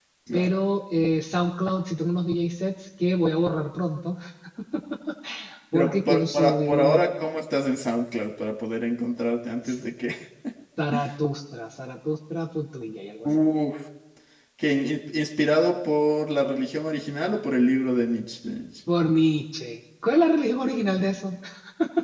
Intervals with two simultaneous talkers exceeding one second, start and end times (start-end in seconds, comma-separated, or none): 5.7-7.0